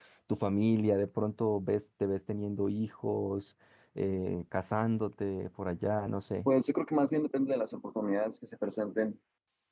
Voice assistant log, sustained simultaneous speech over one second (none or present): none